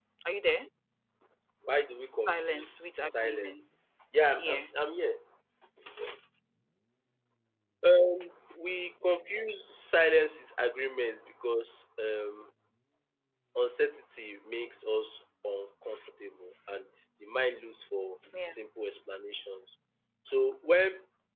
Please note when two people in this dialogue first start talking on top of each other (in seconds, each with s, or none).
2.3 s